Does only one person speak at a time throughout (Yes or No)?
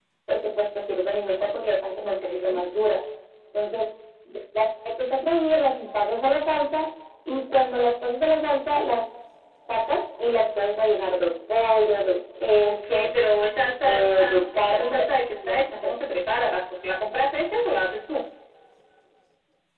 No